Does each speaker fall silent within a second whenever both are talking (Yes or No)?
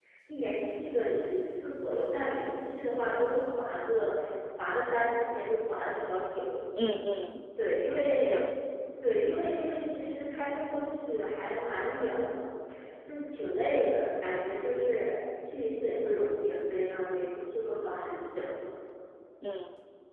Yes